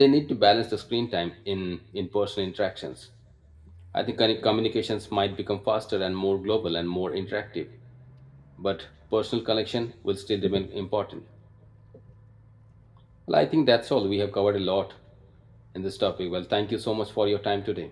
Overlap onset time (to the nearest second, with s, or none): none